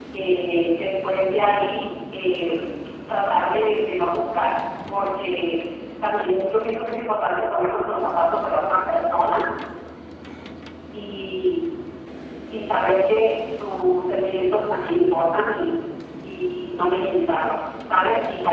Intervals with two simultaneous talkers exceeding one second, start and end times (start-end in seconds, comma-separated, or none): none